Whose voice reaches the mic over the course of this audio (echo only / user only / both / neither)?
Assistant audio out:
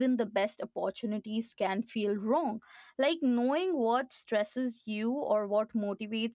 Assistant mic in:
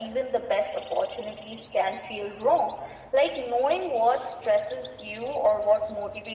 echo only